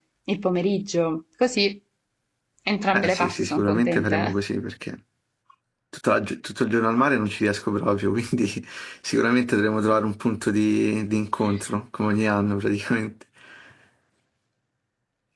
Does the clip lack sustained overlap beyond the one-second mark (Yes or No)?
No